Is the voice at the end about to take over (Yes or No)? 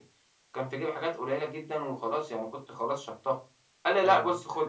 Yes